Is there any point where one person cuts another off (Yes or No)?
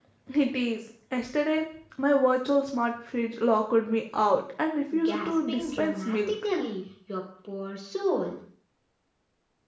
Yes